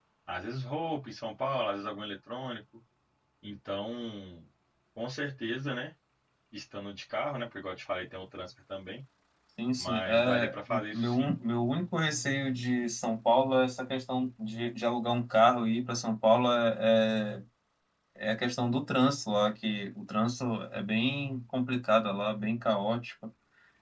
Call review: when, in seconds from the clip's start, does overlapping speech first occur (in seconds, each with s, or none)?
9.8 s